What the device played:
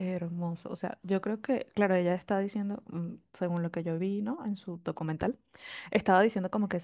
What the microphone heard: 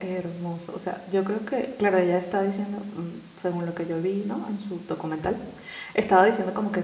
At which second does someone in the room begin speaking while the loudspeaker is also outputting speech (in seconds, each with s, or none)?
none